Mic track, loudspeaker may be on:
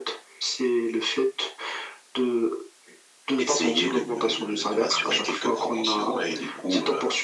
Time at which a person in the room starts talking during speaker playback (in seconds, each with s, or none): 3.4 s